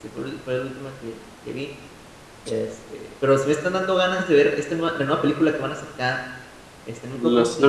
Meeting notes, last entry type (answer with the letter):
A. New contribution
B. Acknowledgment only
B